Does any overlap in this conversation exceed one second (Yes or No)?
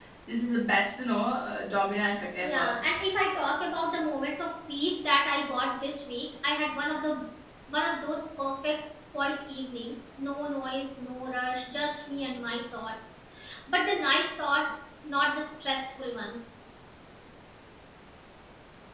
No